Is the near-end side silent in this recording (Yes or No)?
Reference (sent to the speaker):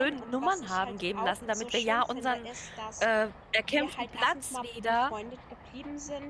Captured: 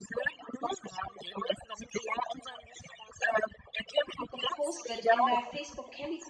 No